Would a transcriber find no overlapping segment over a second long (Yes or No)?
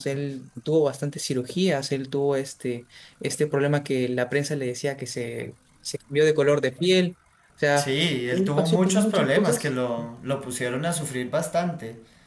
No